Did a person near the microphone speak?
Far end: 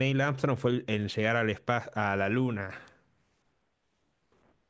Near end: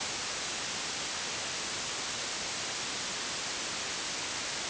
No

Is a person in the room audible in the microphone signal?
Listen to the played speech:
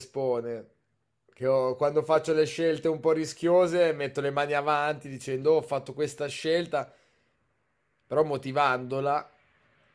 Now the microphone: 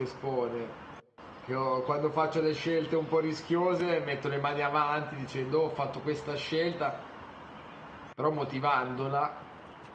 No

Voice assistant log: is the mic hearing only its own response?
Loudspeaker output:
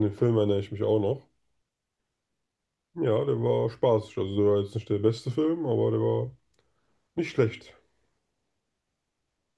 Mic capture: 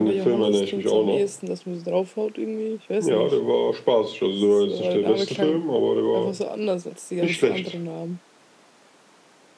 No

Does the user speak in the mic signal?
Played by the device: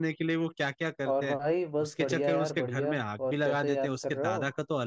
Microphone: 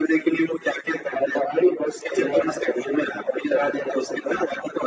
No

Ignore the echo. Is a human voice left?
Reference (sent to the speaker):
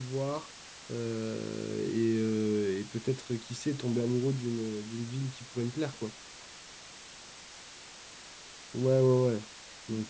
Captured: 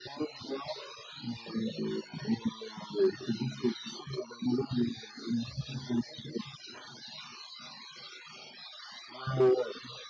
No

